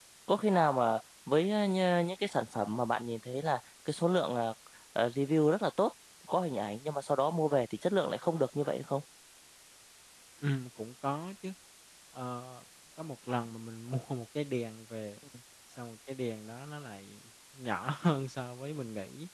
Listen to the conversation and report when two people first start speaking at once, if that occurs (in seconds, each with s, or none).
none